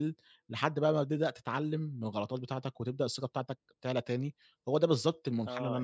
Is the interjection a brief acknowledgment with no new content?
No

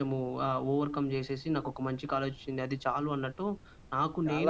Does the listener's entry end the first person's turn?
Yes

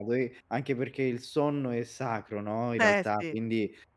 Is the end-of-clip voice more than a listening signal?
No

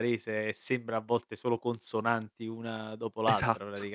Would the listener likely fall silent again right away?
No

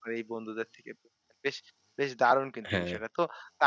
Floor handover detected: No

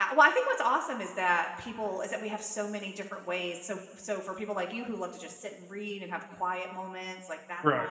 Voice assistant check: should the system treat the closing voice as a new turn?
No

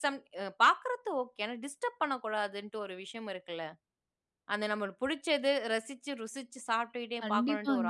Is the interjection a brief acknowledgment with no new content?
No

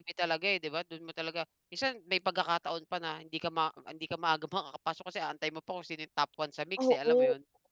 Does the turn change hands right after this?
Yes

